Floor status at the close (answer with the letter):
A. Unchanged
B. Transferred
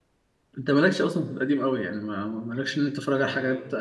A